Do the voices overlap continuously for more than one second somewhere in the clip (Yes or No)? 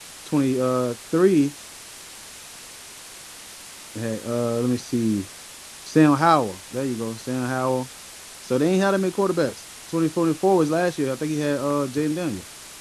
No